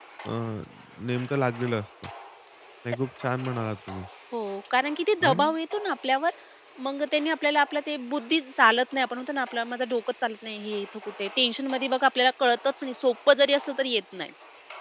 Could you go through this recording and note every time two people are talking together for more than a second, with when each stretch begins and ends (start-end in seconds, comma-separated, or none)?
none